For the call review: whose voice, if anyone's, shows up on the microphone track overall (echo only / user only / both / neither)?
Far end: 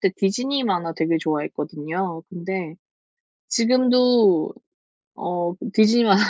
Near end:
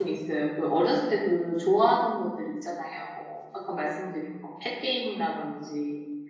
user only